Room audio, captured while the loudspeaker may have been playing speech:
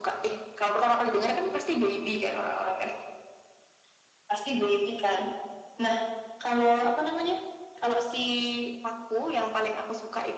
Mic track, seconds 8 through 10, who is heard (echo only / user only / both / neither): echo only